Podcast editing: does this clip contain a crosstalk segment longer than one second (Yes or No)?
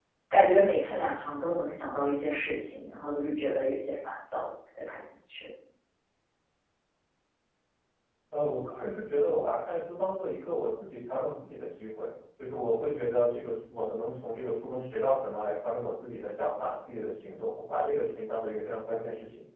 No